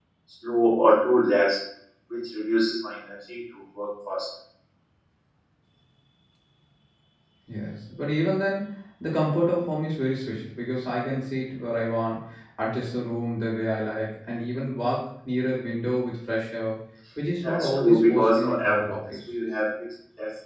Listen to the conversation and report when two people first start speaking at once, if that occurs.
17.4 s

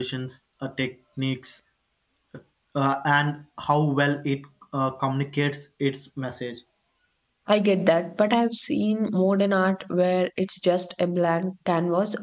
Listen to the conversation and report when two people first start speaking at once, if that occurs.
none

